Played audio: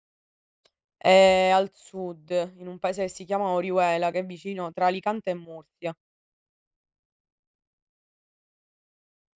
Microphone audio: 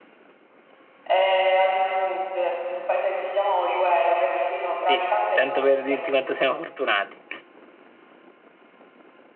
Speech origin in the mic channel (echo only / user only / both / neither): both